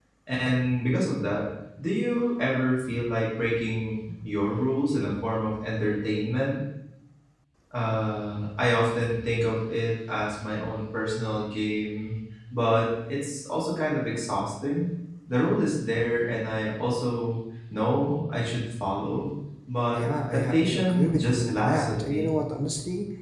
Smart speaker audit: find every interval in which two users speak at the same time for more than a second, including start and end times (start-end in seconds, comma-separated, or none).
19.9-22.3